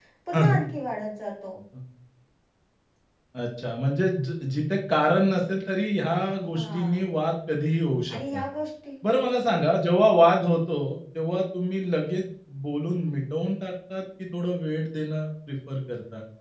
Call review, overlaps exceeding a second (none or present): none